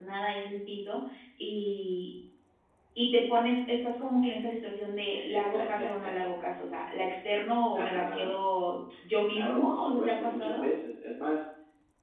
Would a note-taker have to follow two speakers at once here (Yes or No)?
Yes